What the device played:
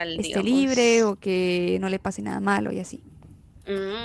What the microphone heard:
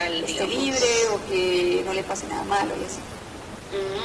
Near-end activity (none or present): none